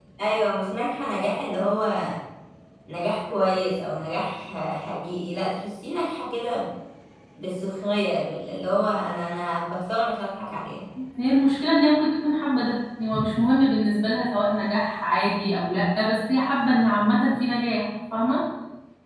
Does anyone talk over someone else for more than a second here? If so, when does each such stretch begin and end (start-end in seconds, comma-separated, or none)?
none